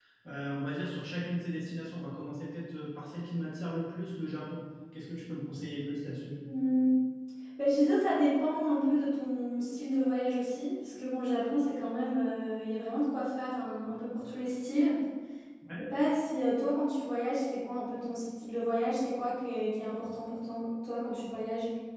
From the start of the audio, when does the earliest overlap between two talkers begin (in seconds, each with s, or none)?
none